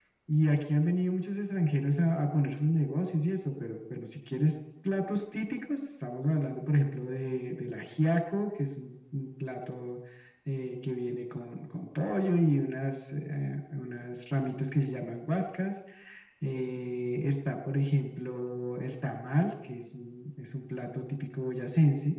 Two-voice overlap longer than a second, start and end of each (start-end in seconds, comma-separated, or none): none